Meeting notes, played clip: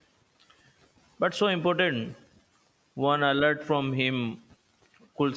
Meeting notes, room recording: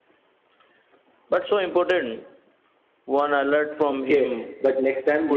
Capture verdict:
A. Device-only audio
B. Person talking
B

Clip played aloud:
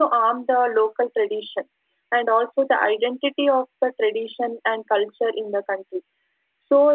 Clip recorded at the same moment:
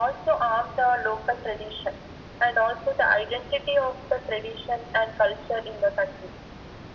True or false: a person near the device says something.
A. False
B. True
A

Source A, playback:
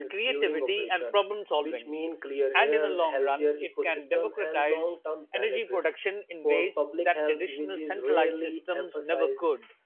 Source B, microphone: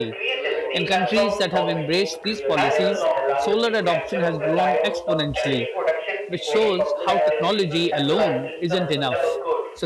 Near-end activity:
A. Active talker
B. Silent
A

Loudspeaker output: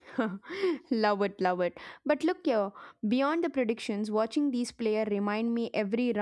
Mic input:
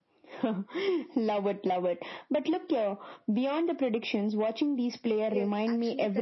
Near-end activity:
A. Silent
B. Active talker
B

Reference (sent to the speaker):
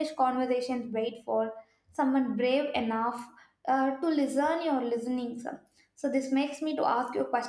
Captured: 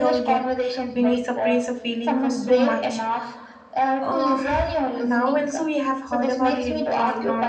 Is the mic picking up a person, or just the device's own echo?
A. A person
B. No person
A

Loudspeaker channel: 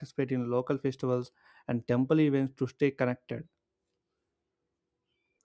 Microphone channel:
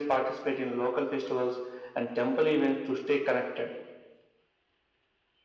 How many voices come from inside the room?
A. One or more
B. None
B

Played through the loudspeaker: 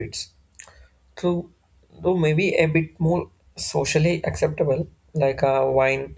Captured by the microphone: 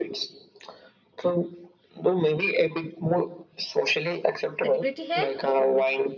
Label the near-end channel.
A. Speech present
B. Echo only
A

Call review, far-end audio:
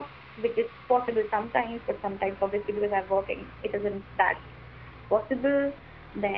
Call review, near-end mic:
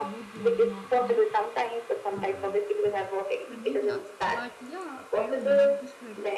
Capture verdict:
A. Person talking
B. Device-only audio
A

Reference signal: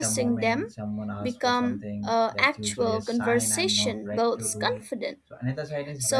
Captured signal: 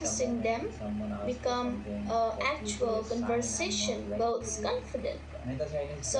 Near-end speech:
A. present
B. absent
B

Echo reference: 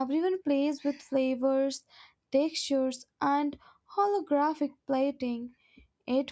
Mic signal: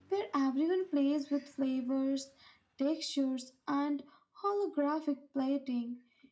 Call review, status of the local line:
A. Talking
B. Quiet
B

